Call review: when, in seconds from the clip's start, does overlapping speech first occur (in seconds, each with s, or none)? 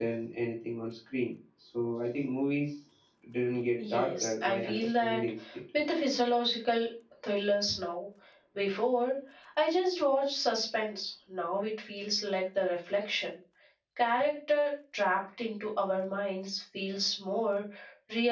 3.8 s